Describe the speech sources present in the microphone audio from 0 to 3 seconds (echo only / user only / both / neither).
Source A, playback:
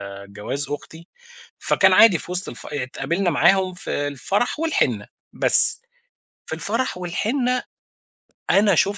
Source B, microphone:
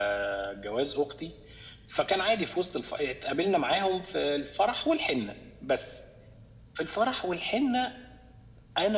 echo only